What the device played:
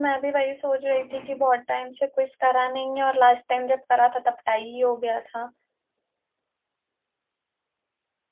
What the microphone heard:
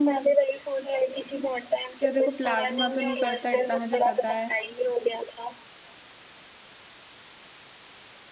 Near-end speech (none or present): present